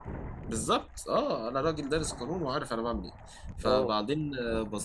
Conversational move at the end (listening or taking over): listening